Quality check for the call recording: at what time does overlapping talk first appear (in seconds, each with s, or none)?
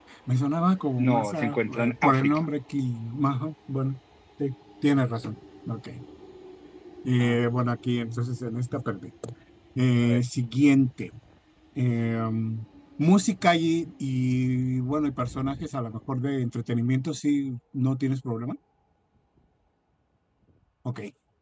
1.0 s